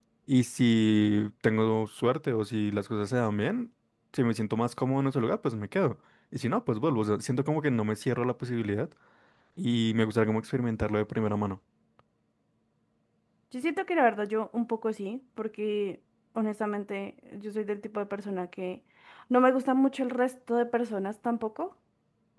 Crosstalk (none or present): none